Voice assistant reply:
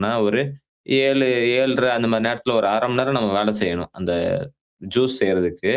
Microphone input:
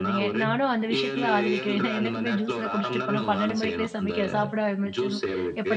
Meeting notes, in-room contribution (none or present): present